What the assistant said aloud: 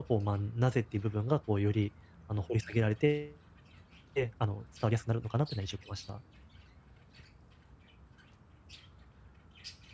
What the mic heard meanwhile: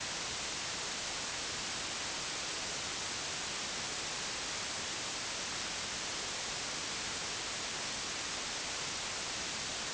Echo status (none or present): none